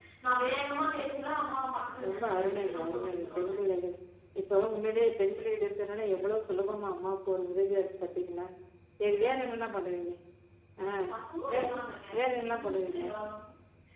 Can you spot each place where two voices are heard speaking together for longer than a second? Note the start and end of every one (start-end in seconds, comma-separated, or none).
2.1-3.5